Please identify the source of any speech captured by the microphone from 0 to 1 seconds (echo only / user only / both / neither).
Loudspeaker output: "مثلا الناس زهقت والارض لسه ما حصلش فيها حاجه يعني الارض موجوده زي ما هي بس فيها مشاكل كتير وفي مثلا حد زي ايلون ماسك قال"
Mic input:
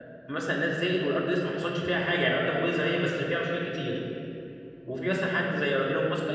echo only